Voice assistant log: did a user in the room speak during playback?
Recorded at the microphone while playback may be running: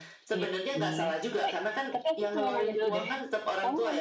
Yes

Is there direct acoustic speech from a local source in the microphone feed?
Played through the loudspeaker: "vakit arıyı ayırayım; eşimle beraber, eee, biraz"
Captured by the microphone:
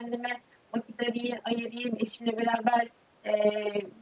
No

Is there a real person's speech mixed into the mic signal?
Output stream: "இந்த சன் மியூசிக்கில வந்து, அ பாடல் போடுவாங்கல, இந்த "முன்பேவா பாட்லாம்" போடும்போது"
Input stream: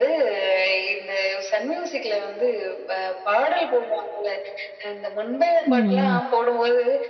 Yes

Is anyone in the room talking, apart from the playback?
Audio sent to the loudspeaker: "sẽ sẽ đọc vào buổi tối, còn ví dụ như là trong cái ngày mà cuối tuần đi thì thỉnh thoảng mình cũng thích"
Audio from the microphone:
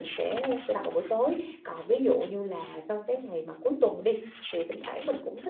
No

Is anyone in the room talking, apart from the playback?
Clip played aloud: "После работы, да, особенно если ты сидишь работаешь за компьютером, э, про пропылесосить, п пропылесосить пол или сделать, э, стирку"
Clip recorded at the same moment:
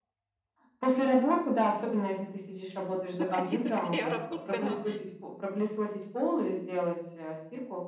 Yes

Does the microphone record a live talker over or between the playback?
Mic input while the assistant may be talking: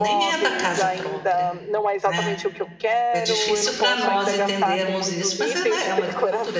Yes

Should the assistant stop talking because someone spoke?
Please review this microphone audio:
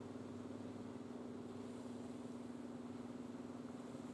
No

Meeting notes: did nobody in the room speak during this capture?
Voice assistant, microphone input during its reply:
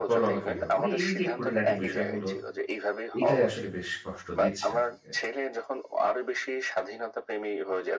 No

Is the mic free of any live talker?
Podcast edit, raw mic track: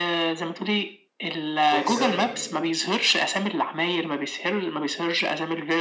No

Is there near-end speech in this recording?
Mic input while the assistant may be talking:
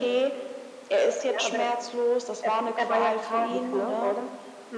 No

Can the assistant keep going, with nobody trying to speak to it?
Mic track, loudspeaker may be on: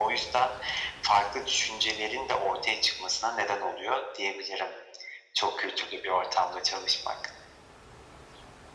Yes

